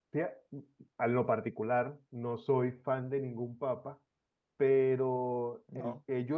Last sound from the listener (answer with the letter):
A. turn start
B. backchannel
B